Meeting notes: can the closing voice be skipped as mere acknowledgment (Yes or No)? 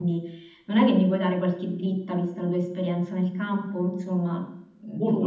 Yes